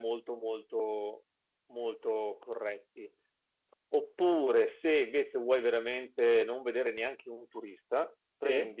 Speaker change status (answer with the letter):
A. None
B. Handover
A